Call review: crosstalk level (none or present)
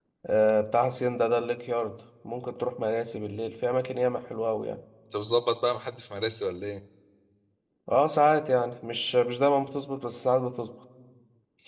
none